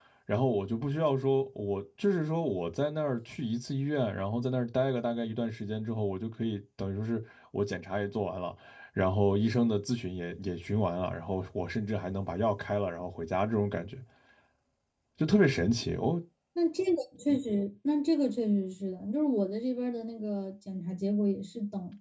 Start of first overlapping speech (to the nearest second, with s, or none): none